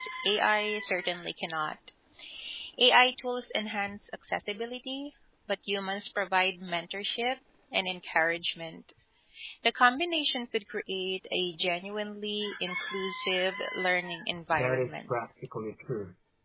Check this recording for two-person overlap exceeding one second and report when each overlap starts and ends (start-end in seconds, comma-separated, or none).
none